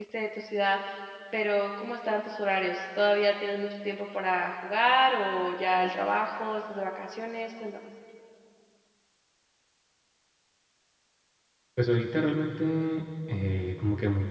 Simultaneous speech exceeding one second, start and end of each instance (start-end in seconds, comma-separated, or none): none